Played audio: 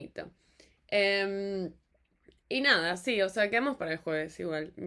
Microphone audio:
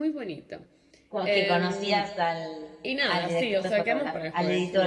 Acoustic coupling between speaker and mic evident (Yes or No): Yes